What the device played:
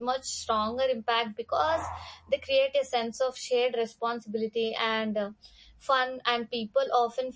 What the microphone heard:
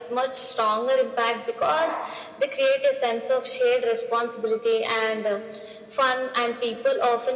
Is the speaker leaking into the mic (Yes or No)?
Yes